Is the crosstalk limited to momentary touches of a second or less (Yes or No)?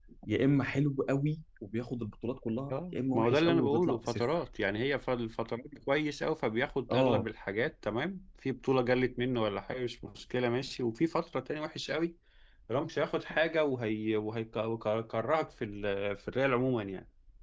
No